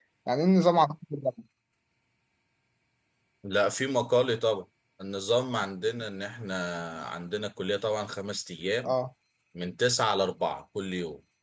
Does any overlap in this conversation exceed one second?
No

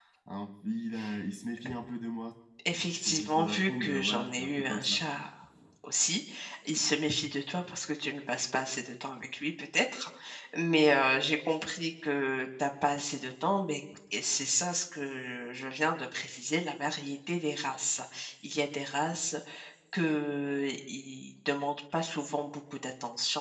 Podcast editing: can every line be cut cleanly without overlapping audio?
No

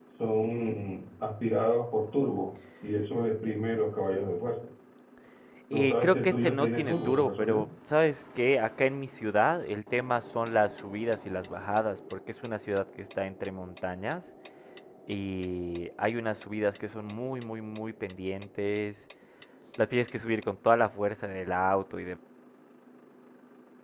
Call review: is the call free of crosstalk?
No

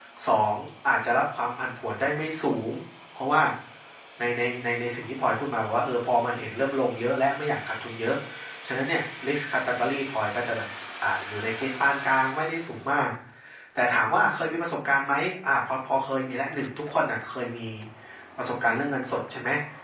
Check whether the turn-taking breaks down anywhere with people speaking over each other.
No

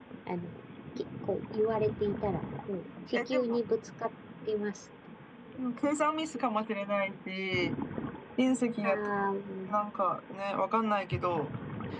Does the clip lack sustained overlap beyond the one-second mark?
Yes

